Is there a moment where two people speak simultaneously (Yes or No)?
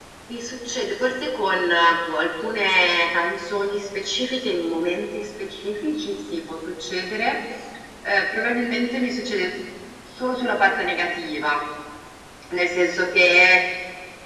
No